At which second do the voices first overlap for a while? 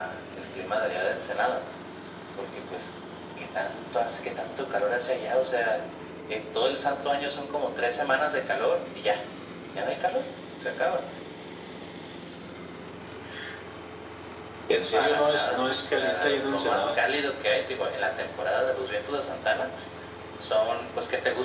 14.9 s

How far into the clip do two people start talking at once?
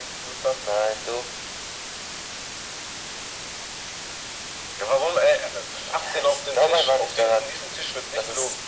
5.9 s

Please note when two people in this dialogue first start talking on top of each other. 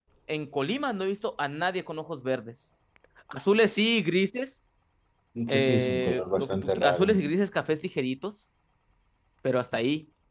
5.5 s

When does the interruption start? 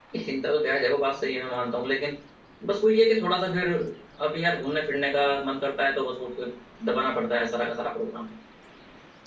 none

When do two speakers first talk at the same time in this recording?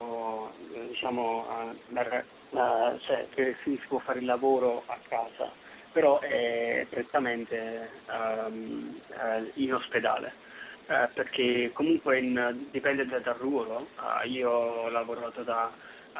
none

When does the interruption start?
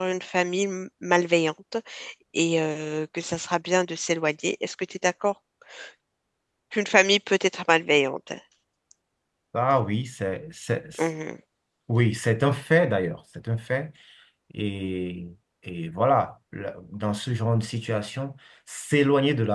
none

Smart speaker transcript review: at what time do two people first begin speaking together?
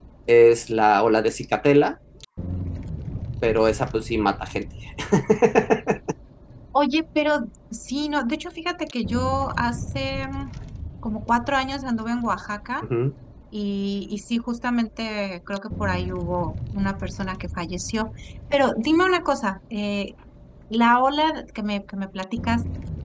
none

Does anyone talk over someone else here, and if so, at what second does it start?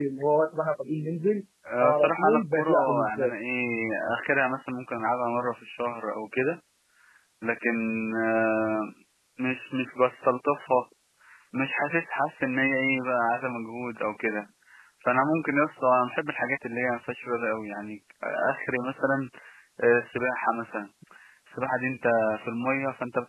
1.8 s

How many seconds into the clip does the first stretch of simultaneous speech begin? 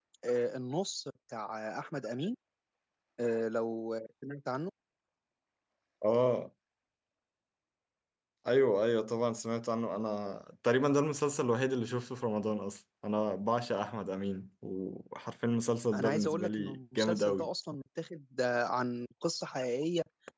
15.9 s

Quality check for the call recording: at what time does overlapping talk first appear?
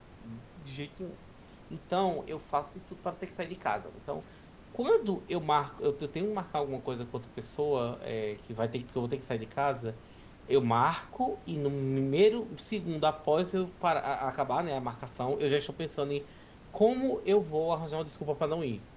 none

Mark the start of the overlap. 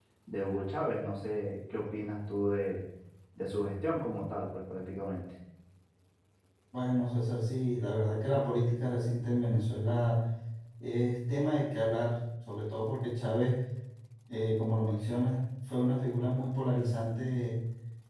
none

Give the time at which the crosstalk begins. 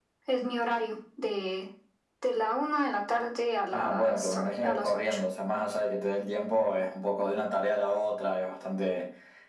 3.7 s

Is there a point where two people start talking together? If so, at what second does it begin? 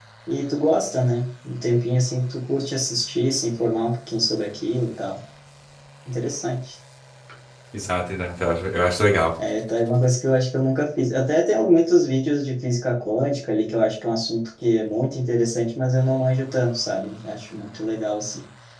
none

